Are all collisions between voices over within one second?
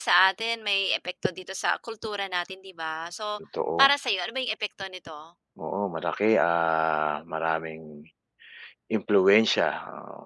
Yes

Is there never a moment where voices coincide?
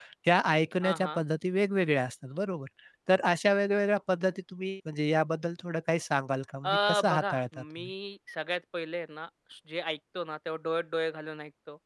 No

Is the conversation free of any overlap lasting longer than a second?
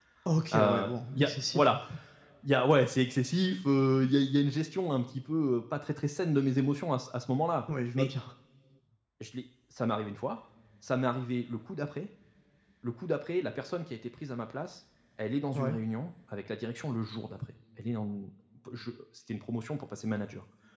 No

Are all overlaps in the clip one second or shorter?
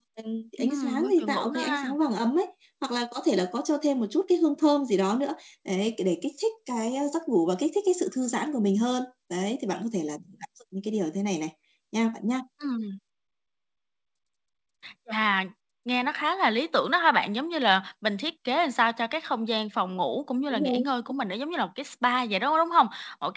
No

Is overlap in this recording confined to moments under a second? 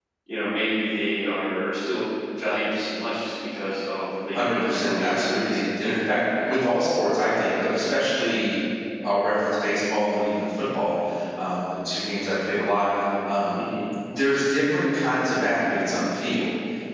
No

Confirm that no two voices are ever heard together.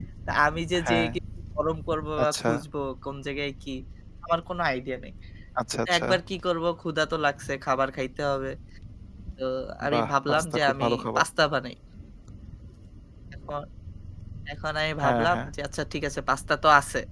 No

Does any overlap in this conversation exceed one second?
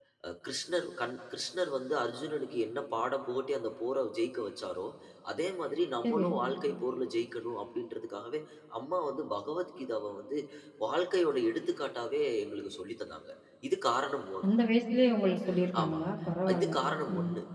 No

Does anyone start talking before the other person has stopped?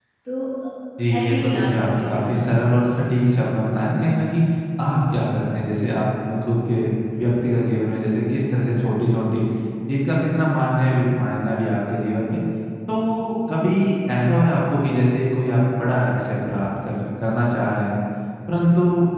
Yes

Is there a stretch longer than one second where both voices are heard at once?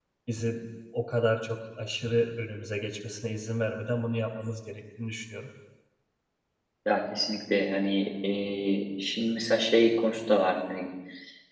No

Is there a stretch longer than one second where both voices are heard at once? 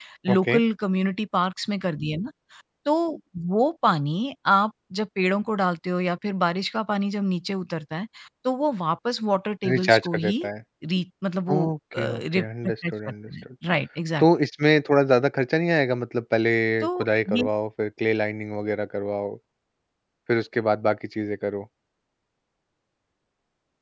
Yes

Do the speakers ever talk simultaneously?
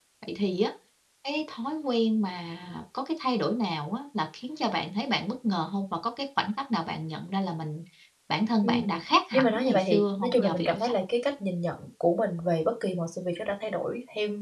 Yes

